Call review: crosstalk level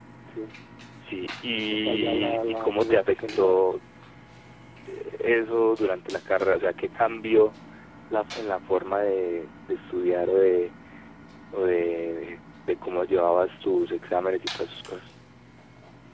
present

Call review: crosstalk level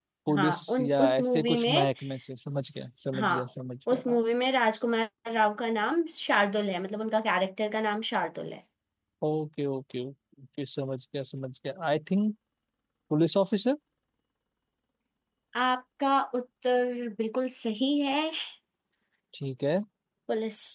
present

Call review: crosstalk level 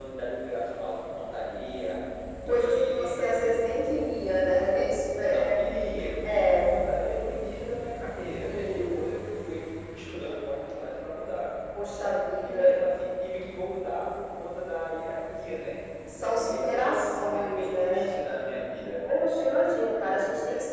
present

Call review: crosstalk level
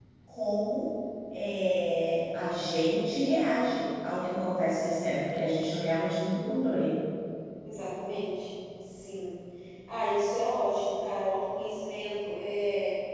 none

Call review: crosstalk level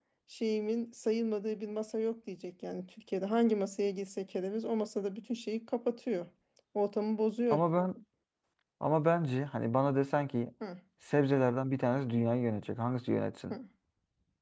none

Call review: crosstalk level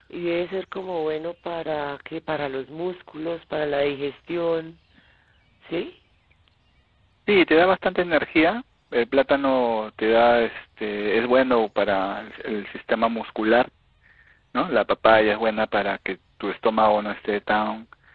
none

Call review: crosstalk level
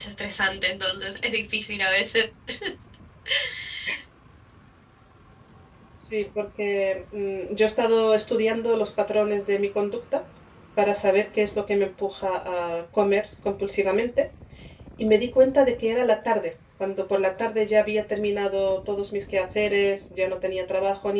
none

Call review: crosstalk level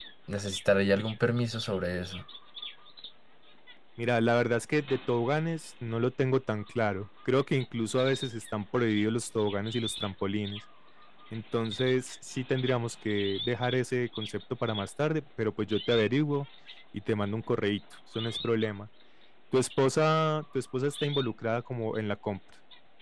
none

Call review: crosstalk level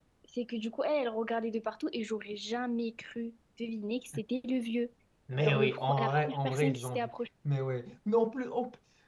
present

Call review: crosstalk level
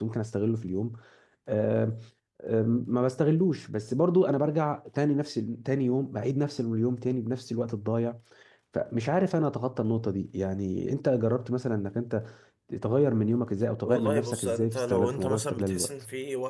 present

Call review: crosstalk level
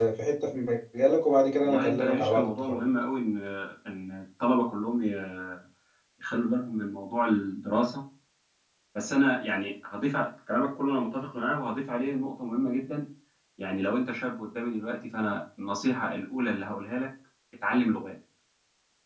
present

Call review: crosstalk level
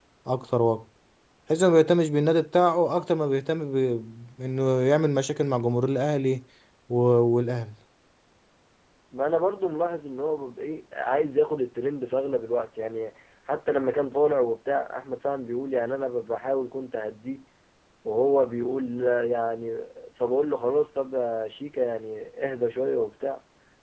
none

